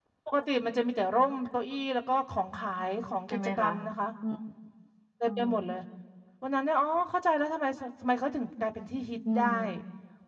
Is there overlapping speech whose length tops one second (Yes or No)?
No